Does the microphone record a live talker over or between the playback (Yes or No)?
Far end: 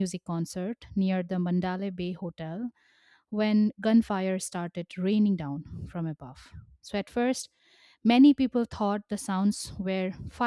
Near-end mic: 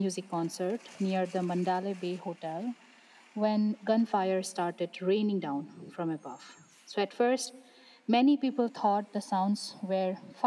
No